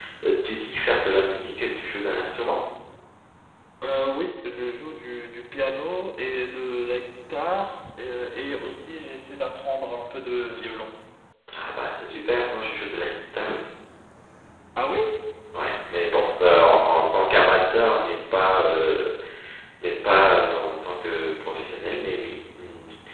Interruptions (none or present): none